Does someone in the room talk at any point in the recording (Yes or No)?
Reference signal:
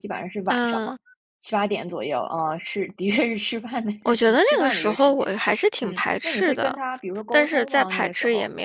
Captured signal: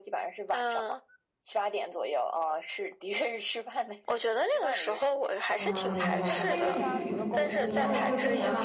Yes